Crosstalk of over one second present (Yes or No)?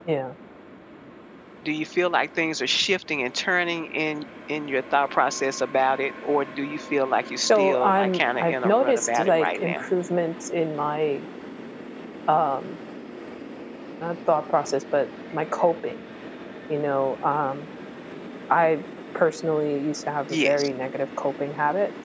Yes